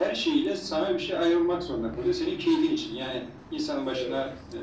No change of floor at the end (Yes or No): Yes